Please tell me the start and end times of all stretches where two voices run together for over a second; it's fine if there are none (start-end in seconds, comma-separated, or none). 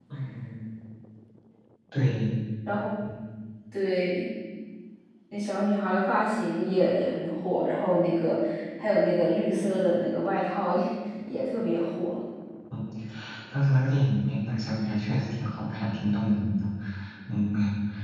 none